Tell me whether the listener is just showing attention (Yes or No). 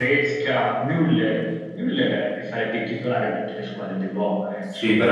No